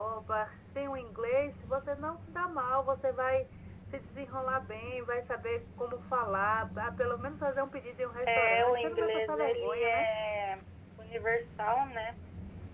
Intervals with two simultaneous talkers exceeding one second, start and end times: 8.3-10.1

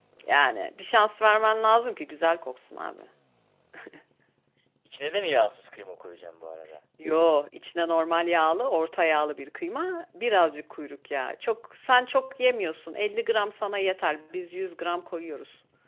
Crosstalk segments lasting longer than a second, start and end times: none

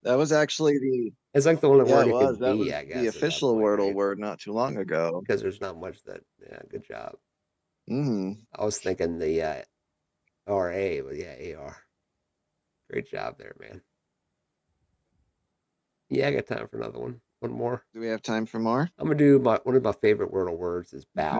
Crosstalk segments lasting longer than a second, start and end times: 1.8-4.0

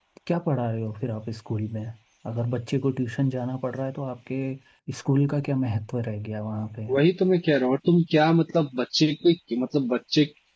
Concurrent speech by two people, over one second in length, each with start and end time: none

